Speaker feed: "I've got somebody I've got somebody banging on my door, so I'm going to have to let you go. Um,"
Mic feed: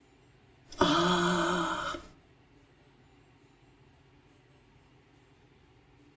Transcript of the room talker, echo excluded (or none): Ah,